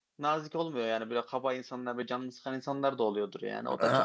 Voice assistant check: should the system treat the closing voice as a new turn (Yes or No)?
No